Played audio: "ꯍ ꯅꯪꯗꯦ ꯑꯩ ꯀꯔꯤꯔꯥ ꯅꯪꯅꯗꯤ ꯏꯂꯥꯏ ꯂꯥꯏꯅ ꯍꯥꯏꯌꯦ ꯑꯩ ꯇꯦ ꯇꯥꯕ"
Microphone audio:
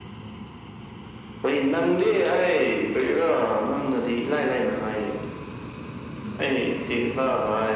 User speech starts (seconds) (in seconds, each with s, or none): none